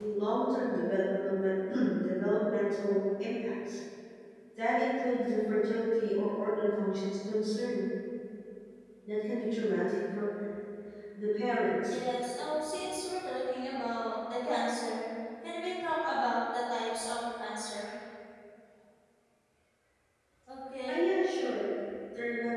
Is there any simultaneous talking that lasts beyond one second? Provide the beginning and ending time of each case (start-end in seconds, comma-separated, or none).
none